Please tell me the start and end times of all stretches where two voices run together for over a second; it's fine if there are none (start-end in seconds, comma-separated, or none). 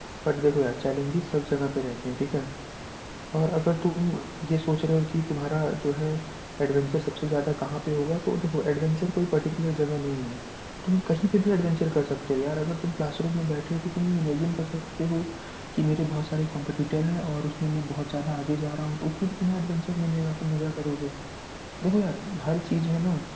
none